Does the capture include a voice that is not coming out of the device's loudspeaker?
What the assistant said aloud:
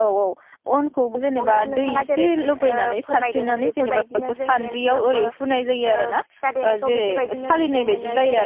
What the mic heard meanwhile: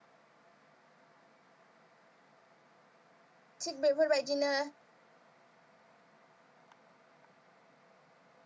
Yes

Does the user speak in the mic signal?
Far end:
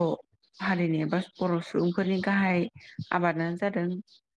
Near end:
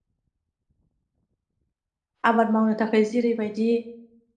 Yes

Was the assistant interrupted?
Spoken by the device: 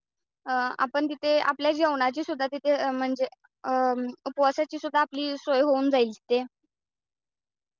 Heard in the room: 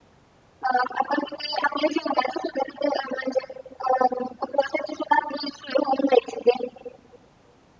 No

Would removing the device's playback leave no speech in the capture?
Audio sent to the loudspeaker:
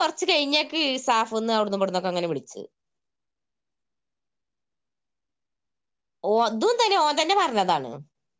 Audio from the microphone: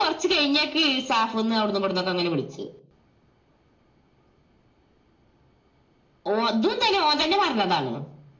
Yes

